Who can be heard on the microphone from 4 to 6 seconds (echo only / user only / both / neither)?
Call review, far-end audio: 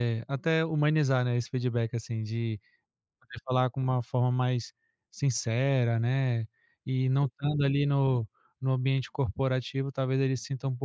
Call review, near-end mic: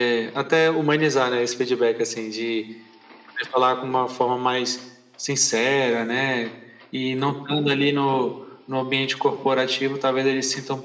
echo only